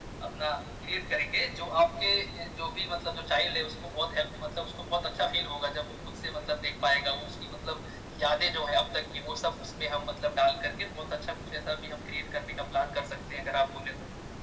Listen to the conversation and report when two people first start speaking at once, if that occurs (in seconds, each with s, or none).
none